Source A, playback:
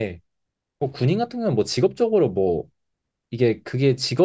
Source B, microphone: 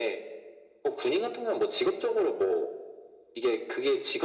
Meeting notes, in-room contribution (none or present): none